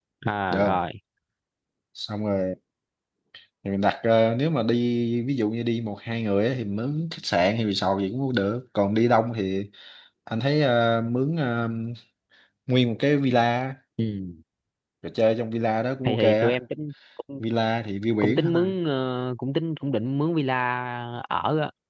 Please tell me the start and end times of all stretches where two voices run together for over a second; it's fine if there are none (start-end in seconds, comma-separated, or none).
none